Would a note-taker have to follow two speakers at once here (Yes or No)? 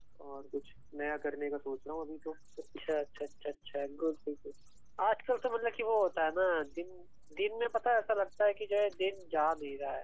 No